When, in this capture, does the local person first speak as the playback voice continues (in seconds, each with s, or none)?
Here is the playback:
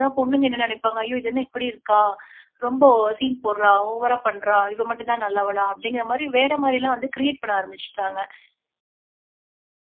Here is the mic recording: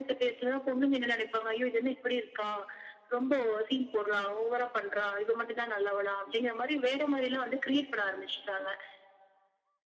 none